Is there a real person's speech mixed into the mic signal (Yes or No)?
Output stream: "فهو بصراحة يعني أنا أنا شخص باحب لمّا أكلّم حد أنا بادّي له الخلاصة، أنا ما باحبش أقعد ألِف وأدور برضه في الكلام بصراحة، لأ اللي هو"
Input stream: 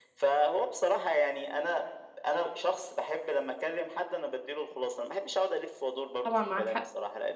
Yes